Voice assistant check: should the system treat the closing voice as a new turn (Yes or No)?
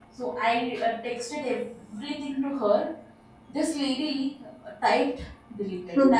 No